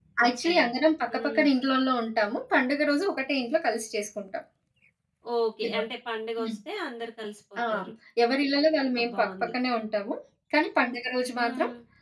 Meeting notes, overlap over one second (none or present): none